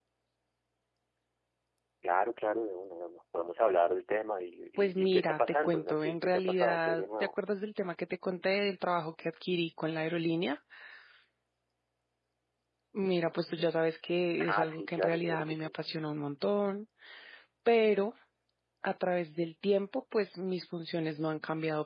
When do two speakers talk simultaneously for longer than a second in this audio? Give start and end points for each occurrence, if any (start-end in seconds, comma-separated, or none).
4.8-7.3, 14.4-15.7